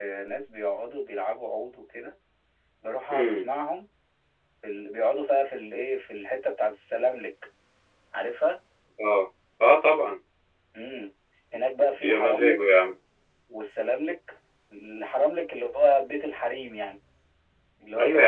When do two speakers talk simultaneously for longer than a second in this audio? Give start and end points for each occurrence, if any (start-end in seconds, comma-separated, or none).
none